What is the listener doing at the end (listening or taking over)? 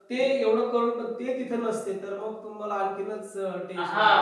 taking over